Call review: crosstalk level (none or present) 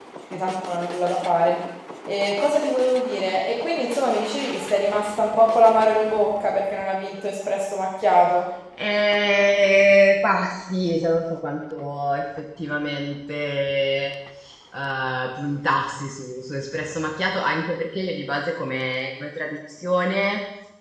none